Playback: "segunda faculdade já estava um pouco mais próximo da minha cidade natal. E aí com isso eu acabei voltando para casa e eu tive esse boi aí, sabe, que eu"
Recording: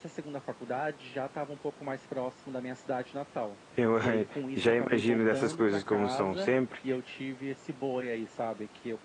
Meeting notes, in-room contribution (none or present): present